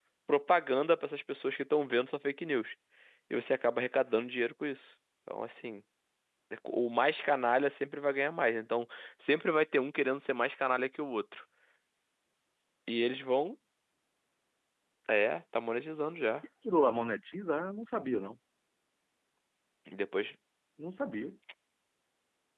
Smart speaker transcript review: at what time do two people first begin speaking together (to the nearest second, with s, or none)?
none